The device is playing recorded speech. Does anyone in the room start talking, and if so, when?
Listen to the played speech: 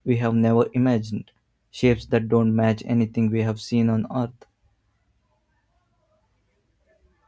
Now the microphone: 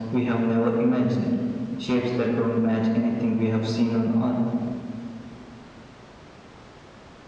none

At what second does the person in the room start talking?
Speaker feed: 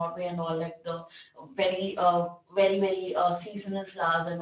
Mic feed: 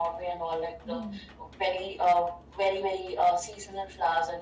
0.8 s

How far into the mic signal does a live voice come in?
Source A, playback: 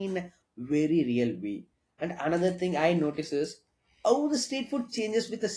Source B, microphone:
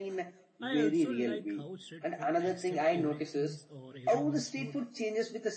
0.6 s

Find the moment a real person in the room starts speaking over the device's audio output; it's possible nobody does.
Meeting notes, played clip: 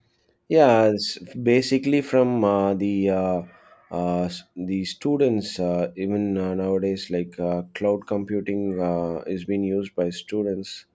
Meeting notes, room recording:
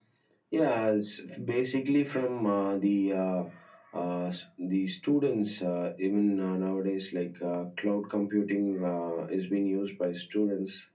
none

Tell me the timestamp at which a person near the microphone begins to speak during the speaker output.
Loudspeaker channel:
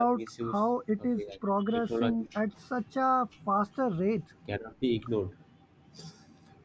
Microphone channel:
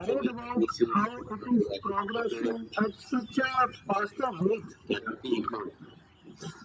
none

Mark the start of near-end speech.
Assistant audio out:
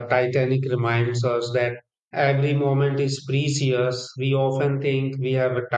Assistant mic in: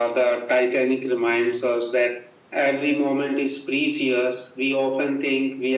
none

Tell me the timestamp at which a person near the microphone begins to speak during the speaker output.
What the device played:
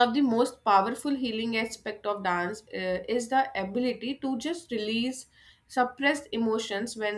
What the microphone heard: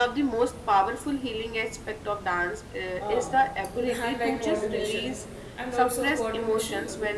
3.0 s

